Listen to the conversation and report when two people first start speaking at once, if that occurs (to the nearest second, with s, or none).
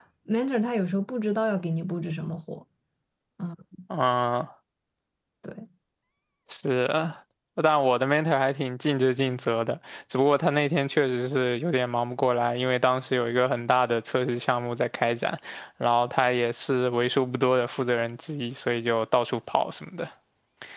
none